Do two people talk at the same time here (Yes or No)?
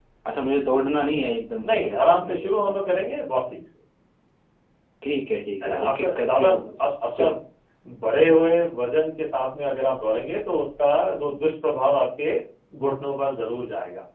Yes